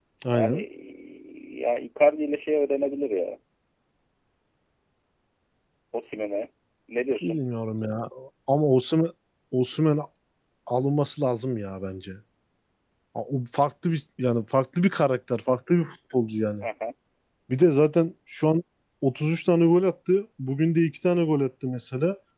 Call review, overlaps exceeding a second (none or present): none